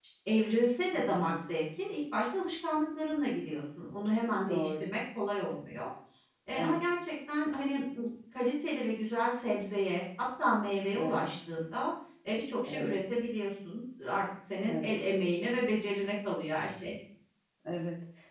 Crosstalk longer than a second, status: none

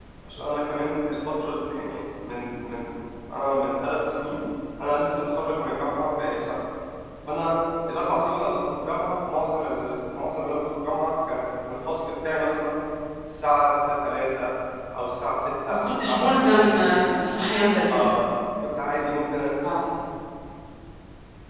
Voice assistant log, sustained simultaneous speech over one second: present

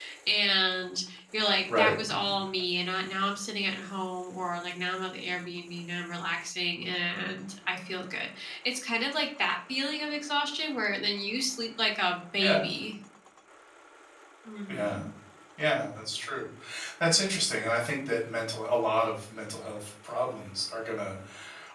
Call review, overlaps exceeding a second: none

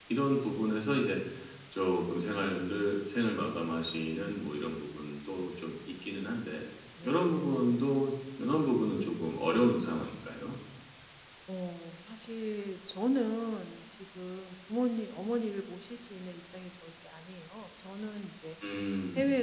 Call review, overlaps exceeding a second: none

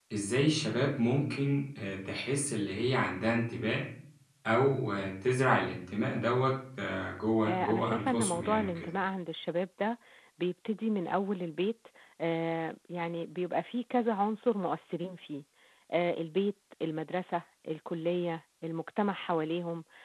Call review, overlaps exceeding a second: present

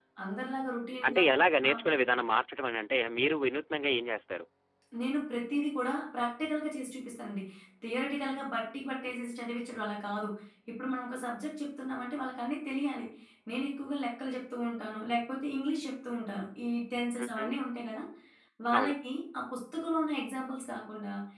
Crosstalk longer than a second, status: none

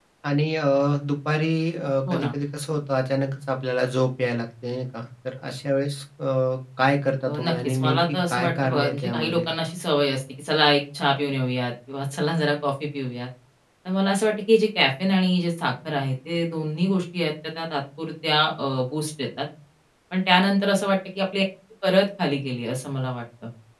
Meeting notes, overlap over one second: present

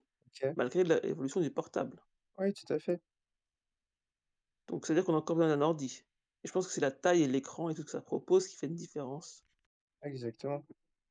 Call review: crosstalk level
none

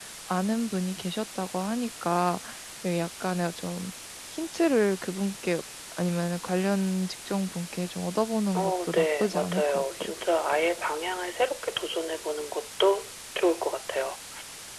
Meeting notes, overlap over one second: present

